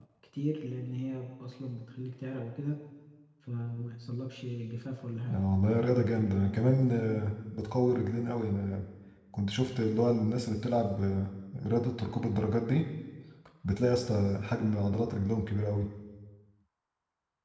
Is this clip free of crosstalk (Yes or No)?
Yes